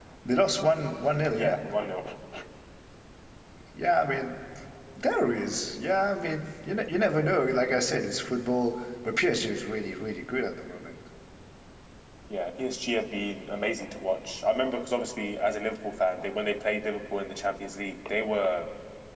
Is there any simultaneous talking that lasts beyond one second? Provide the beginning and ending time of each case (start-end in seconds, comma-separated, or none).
none